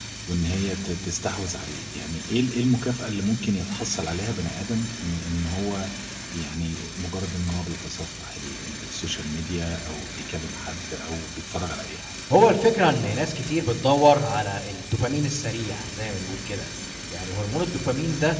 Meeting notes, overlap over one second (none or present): none